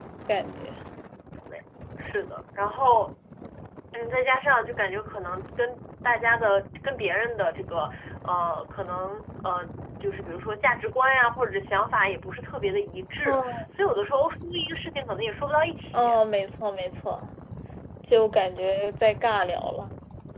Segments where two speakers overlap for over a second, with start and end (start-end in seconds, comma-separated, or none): none